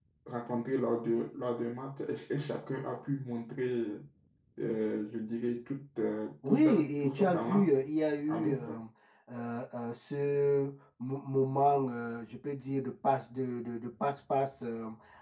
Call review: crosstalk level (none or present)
present